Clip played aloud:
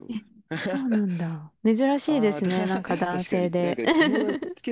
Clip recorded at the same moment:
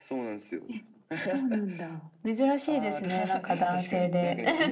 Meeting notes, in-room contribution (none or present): none